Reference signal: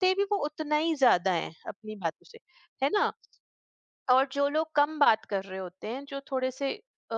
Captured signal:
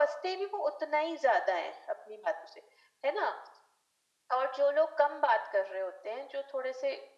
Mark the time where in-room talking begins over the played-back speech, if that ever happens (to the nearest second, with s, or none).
none